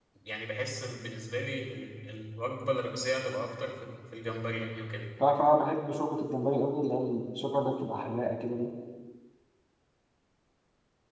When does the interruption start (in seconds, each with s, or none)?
none